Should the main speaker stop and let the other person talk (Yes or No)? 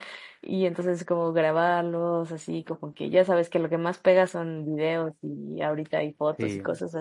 No